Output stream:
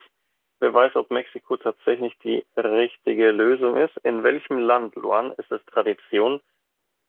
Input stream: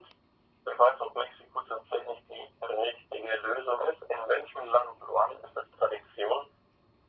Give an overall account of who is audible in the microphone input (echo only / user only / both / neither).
echo only